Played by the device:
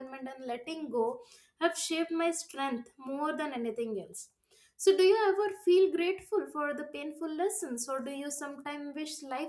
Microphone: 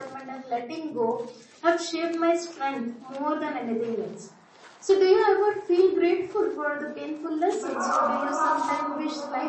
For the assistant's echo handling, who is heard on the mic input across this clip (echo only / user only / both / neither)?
both